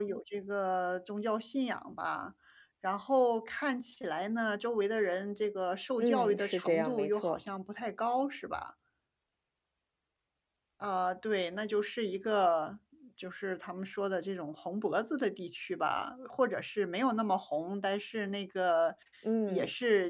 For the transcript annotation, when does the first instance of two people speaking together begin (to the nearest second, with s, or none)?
6 s